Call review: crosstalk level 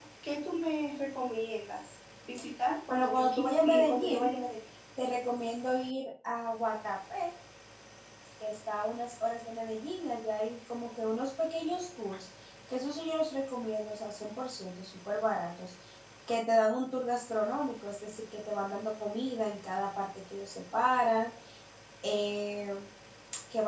present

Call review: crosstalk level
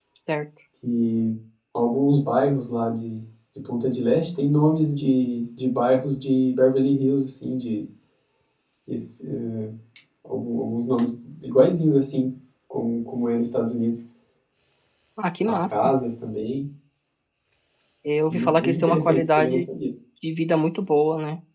present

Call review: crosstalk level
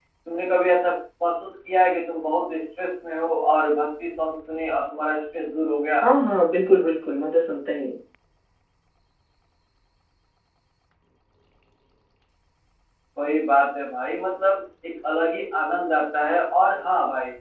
none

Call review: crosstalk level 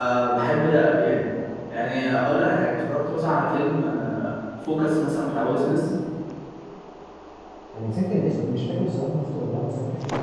none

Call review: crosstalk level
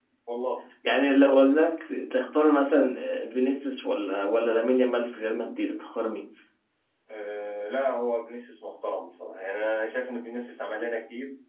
none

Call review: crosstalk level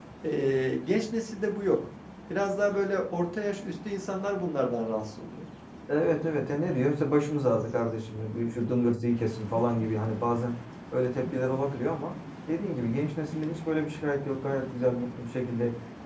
none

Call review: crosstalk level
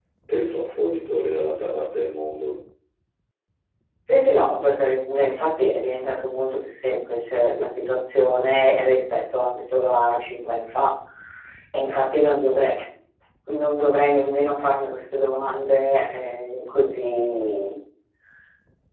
none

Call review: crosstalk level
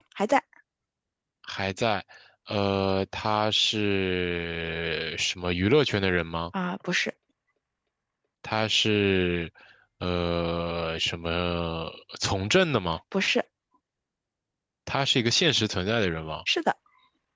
none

